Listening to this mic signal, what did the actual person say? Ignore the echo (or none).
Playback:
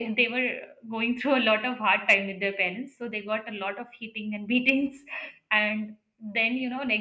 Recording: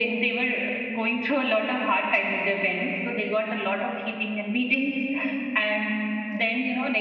none